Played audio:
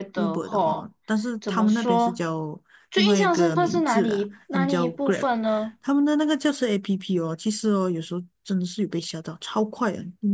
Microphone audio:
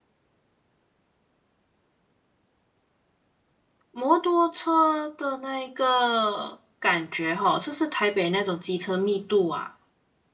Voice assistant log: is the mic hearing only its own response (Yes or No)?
No